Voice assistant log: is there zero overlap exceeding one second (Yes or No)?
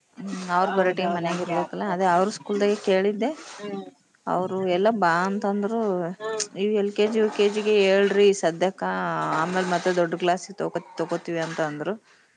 No